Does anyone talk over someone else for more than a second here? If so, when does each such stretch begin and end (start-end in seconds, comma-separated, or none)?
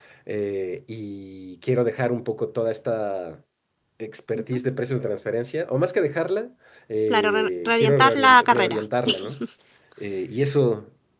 7.1-8.8